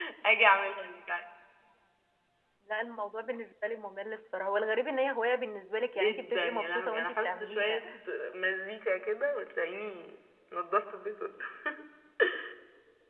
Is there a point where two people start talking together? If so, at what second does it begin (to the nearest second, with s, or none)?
6 s